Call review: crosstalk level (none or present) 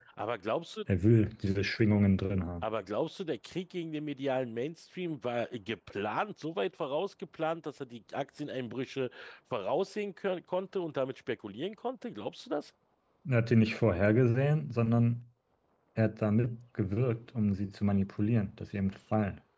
none